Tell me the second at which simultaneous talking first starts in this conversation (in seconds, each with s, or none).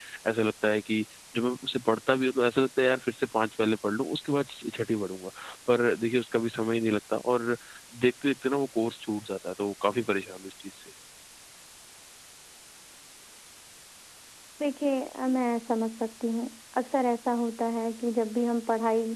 none